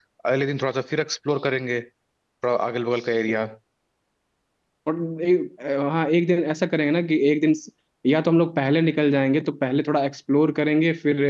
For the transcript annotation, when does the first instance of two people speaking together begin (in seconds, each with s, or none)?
none